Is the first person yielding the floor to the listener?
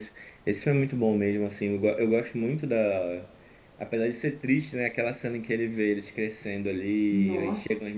No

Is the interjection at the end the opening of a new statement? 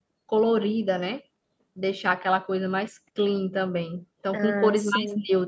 No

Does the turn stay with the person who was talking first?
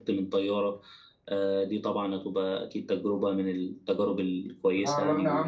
No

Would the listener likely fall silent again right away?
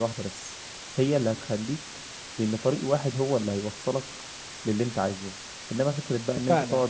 Yes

